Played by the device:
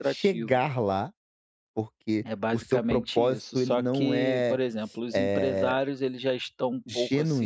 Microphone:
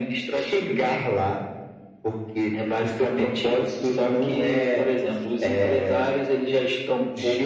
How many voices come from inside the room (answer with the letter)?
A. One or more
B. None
B